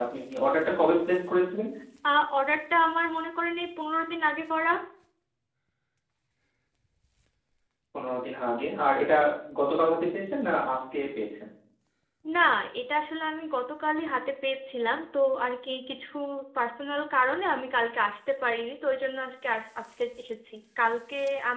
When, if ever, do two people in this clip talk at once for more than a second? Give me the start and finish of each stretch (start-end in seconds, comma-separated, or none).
none